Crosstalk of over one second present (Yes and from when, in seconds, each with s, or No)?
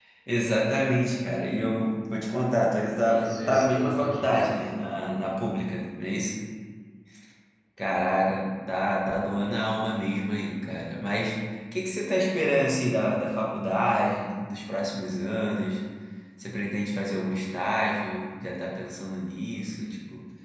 Yes, from 3.1 s